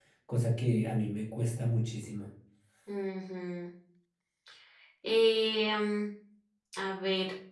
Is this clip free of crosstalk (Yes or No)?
Yes